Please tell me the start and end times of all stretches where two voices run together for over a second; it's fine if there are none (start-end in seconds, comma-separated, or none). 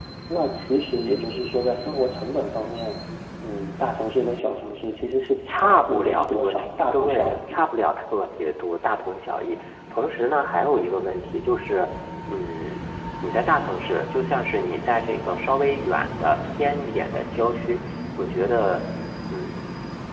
5.5-7.6